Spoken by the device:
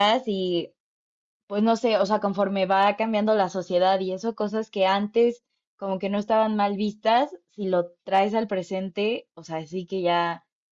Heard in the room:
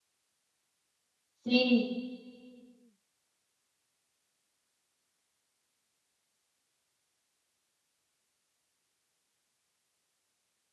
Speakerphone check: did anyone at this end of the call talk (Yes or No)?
Yes